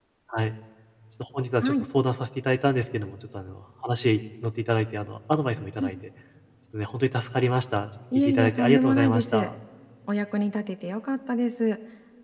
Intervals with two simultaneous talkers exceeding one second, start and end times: 8.2-9.5

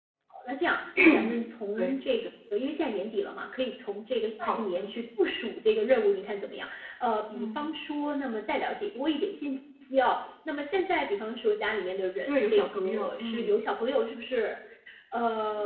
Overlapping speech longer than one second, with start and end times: 12.3-13.5

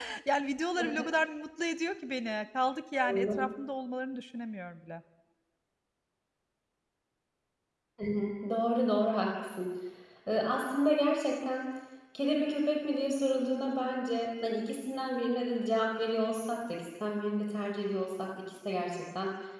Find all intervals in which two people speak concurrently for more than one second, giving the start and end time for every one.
none

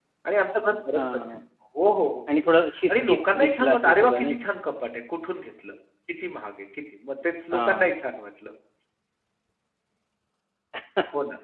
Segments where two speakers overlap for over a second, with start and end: 2.9-4.3

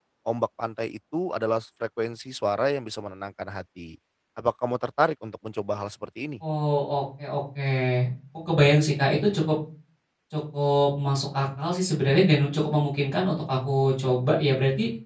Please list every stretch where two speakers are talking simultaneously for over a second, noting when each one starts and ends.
none

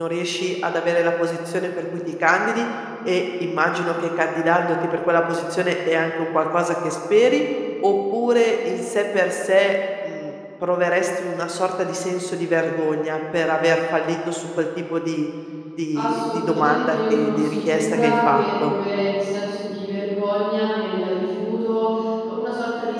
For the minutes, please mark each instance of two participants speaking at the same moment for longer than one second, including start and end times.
16.0-18.7

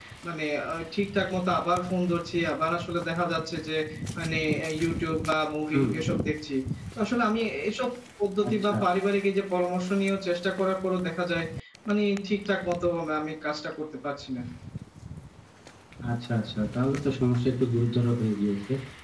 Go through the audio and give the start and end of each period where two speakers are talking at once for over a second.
none

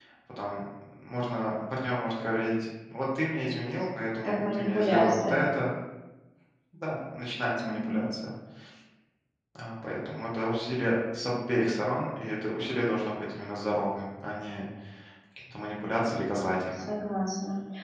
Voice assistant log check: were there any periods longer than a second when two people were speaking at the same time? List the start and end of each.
4.2-5.5

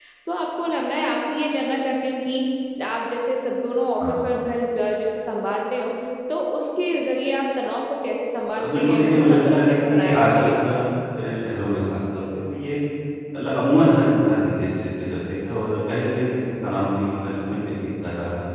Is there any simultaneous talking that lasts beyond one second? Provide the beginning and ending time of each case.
8.6-10.6

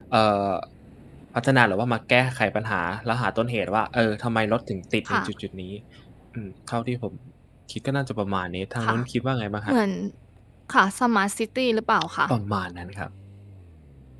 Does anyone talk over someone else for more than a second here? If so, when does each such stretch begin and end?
none

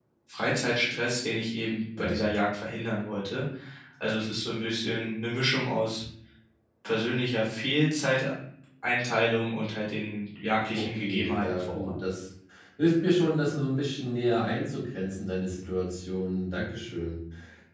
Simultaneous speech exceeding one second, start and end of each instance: 10.7-11.9

